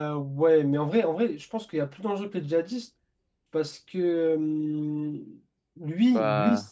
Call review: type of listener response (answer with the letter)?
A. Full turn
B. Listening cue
B